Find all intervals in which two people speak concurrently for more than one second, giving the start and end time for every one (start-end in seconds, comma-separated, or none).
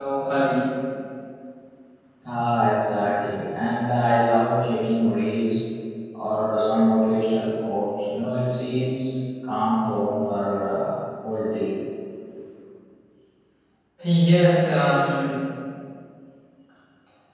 none